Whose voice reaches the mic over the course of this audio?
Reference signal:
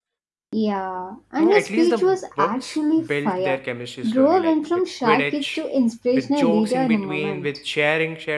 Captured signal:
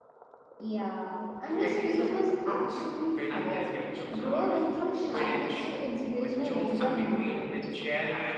both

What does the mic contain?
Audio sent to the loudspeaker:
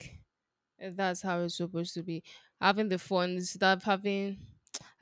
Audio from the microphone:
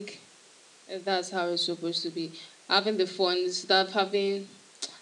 echo only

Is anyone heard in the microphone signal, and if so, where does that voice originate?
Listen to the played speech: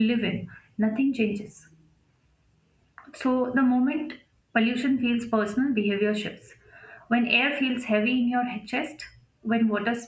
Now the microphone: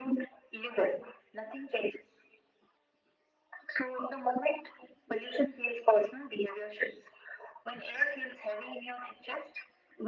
echo only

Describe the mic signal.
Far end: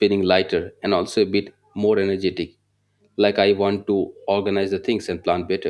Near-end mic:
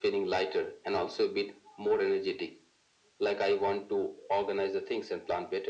echo only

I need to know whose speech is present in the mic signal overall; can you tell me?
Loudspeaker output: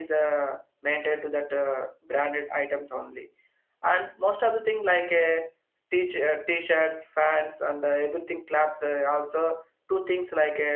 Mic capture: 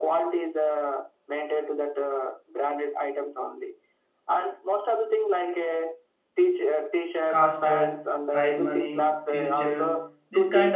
both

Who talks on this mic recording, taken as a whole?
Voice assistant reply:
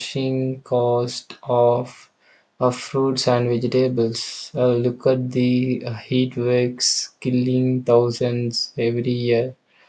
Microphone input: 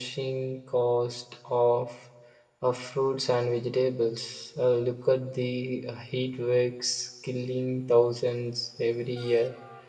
echo only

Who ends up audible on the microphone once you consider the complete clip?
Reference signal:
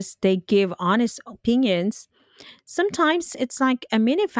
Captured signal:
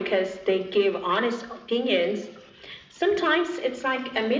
echo only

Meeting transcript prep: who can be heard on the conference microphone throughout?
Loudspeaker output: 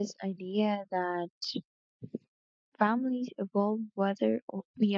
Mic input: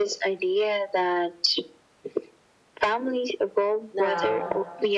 both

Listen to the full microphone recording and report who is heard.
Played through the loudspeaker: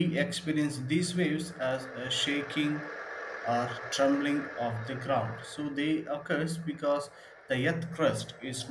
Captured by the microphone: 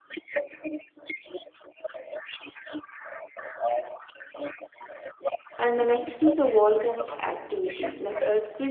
both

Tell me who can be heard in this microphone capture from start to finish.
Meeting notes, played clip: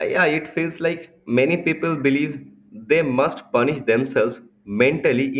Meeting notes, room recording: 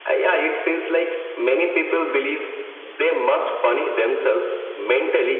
echo only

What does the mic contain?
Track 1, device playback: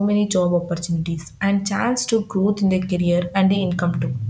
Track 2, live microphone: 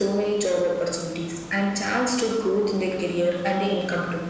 echo only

